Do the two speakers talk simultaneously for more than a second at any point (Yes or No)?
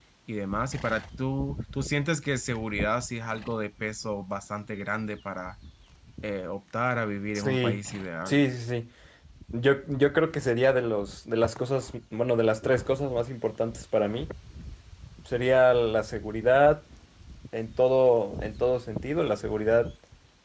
No